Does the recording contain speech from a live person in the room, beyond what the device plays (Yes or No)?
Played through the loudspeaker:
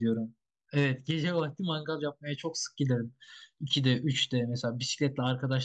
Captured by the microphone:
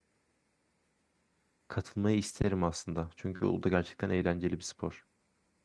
Yes